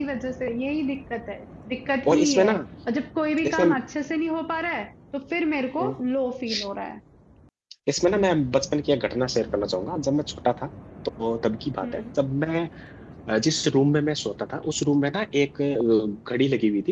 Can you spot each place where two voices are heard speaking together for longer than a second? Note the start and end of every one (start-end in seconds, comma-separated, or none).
none